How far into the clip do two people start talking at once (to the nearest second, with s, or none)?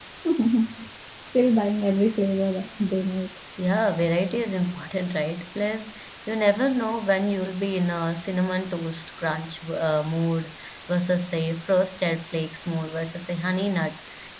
none